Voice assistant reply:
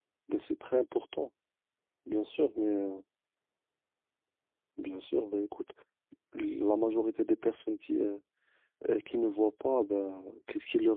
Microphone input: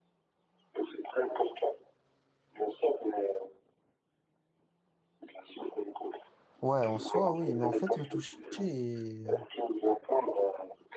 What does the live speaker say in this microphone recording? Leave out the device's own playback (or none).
ouais, en soi, oui, mais en fait, le toucher, euh,